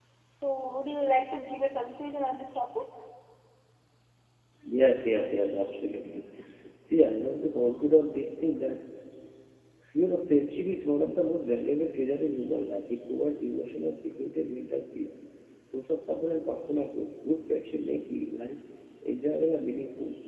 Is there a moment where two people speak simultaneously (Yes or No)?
No